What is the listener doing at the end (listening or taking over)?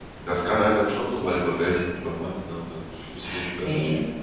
listening